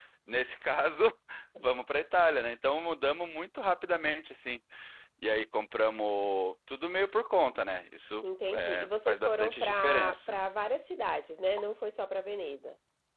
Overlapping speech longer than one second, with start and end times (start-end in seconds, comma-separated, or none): 8.5-10.4